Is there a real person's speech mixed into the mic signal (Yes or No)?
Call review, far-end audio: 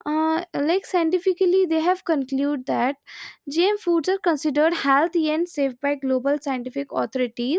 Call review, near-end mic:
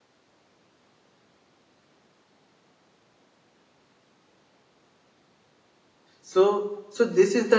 Yes